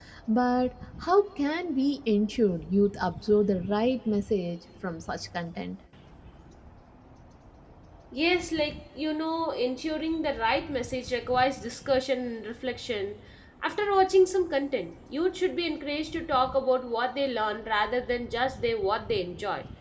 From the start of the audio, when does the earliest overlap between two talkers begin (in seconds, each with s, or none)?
none